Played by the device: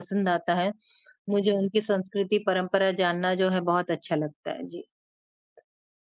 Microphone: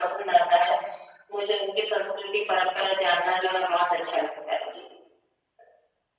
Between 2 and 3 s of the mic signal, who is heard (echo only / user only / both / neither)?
echo only